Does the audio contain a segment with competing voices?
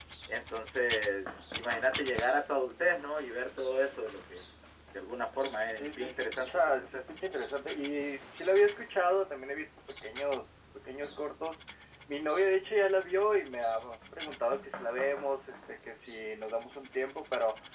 Yes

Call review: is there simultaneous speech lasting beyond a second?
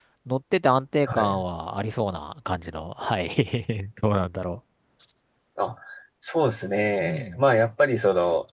No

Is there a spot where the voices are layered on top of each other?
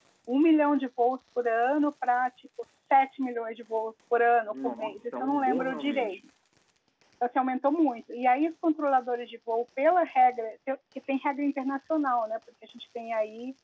Yes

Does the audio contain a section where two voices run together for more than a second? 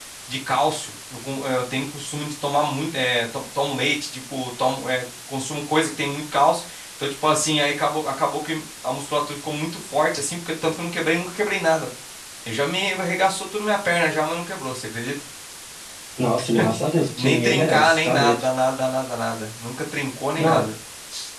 Yes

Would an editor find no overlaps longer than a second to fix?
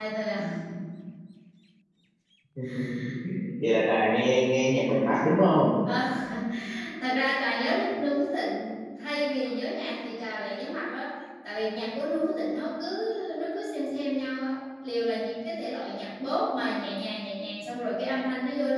Yes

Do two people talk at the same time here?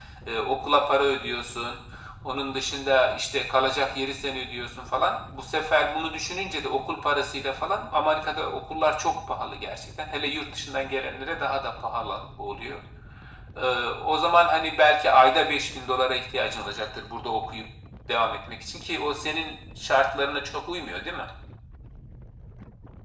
No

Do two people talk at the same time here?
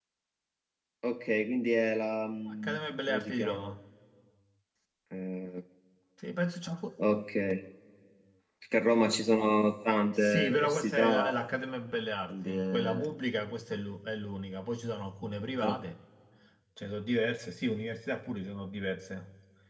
Yes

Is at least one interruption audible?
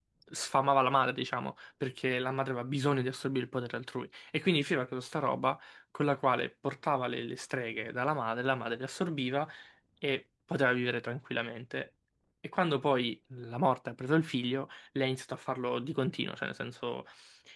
No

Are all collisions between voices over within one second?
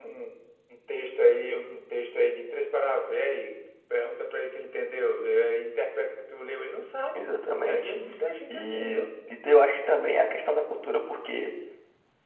Yes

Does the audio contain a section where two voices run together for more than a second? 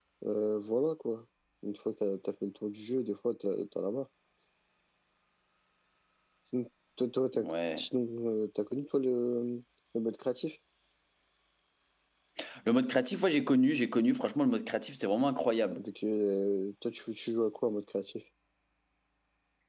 No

